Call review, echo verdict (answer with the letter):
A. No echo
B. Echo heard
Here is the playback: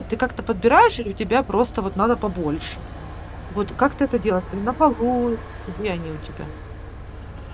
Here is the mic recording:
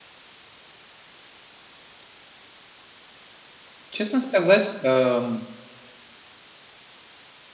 A